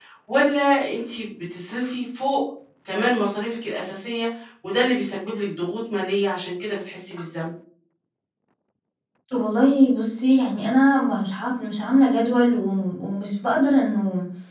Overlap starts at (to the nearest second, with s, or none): none